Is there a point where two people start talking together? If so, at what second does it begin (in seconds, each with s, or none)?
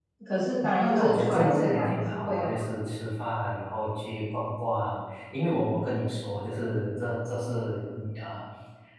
0.8 s